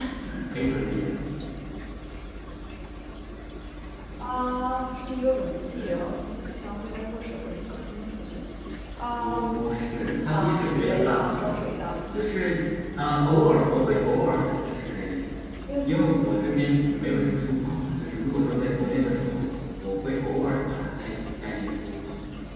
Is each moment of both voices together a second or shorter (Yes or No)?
No